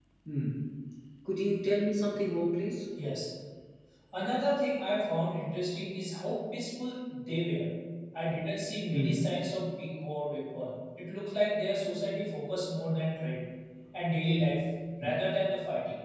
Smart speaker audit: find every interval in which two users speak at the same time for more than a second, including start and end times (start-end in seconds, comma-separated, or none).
none